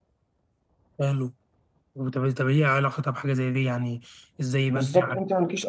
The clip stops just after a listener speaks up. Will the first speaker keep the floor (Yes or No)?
No